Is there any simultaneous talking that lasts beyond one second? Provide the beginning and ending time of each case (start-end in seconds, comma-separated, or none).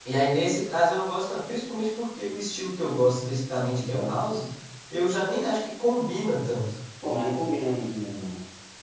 none